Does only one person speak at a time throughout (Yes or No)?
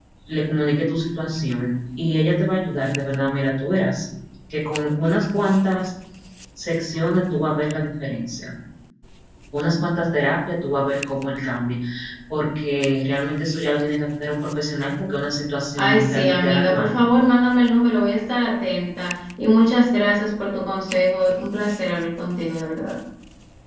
No